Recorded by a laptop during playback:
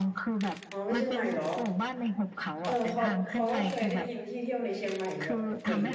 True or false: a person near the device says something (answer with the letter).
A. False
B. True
B